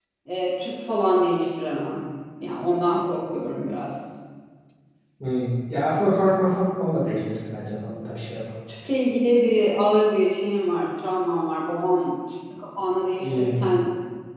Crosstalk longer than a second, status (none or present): none